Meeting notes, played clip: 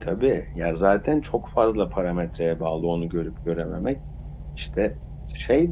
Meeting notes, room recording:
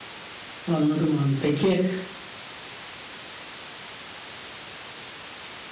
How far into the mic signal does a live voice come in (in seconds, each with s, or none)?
0.6 s